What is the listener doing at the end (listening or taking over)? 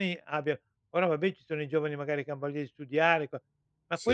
listening